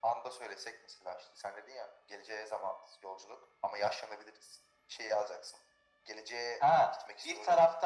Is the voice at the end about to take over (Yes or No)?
Yes